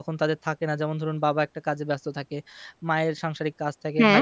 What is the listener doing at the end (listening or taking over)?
listening